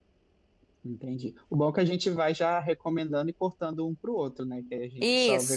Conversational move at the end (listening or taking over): taking over